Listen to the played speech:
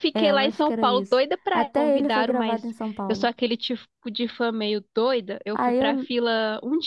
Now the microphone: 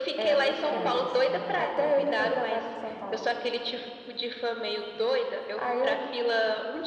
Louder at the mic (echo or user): echo